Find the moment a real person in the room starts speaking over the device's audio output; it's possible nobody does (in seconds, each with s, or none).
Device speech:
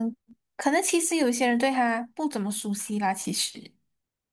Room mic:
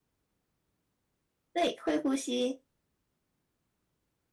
1.5 s